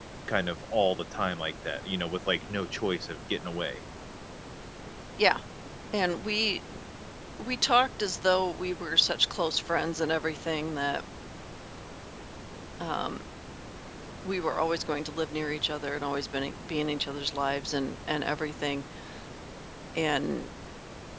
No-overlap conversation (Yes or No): Yes